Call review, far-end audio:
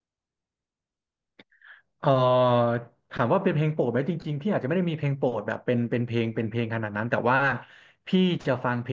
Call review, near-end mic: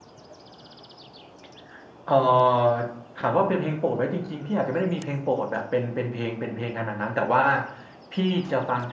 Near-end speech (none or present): none